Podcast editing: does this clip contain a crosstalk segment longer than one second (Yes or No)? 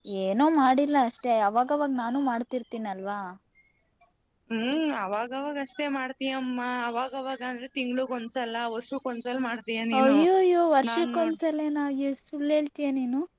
No